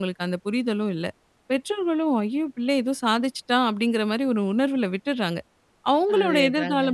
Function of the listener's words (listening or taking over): listening